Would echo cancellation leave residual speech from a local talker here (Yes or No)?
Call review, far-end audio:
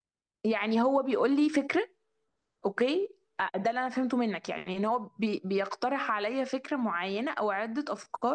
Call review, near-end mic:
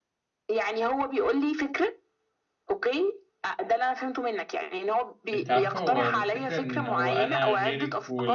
Yes